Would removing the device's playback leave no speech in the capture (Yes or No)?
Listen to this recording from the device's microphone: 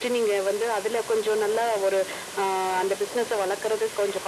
Yes